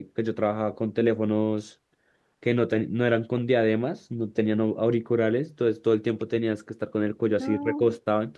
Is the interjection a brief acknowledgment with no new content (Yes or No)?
Yes